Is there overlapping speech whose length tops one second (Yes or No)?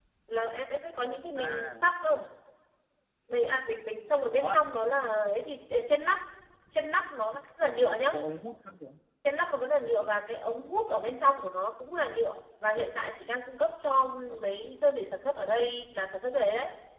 No